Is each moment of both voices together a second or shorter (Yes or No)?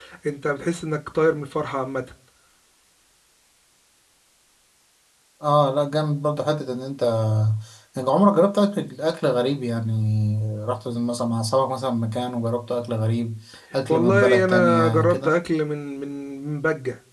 No